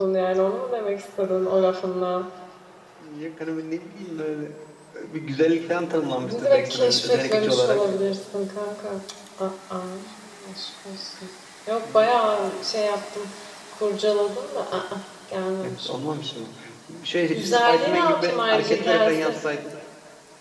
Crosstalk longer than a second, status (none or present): present